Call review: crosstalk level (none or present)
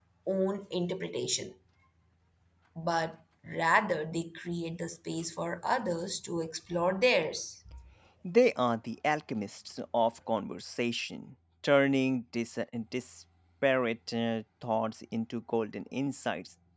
none